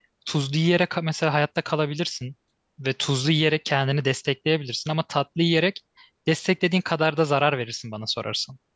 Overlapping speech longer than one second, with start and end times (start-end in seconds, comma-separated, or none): none